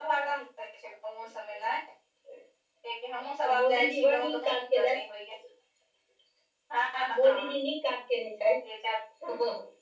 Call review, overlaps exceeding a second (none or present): present